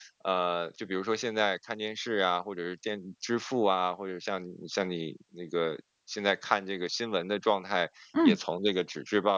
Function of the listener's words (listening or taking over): listening